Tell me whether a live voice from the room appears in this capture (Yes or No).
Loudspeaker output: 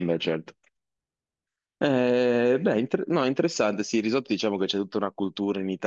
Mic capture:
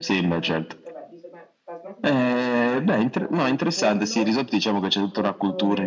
Yes